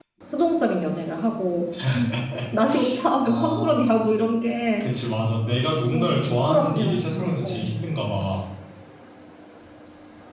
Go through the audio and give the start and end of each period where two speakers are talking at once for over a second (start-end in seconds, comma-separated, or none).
5.9-7.7